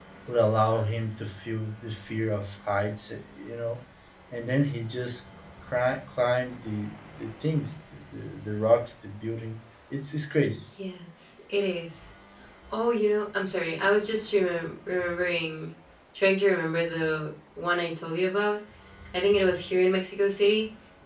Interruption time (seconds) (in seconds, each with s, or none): none